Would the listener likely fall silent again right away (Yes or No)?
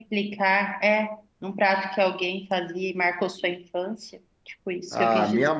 No